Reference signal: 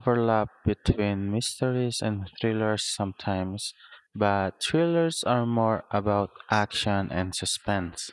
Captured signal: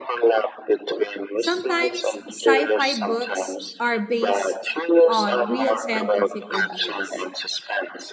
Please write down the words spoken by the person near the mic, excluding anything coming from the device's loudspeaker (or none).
Sometimes sci fi books are based on real scientific ideas.